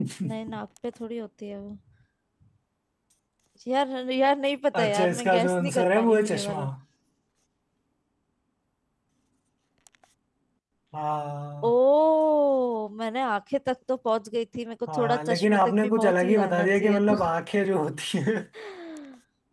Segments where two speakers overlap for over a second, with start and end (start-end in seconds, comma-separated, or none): 4.8-6.6, 14.9-17.1